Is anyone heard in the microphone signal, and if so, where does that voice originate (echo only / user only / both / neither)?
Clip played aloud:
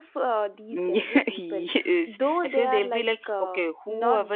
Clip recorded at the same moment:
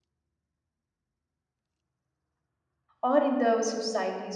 user only